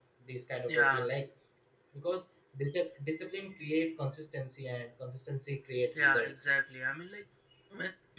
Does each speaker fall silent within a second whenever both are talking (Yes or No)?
Yes